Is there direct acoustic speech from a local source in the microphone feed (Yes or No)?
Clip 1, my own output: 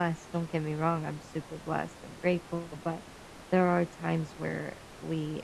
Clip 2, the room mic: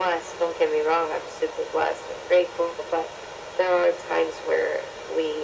No